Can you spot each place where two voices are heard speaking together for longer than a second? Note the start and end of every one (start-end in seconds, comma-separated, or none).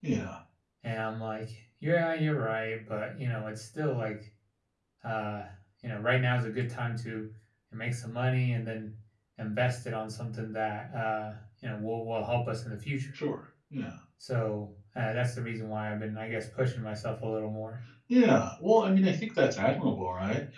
none